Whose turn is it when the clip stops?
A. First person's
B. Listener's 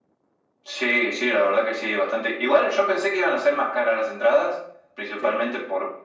A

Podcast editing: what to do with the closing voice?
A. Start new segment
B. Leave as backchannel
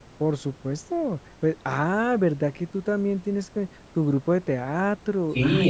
A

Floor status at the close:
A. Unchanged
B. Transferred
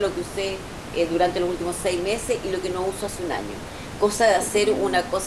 A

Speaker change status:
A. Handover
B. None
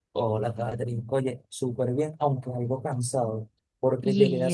B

